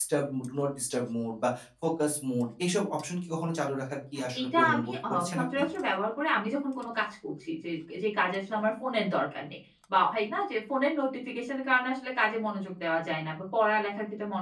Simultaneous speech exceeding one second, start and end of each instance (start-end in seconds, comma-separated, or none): 4.4-5.6